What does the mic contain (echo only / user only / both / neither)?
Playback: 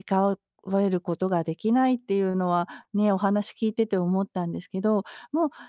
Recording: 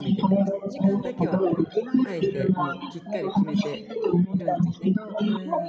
both